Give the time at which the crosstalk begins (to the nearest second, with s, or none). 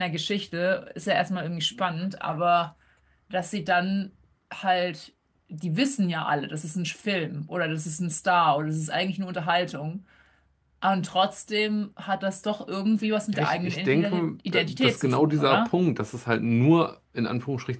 13 s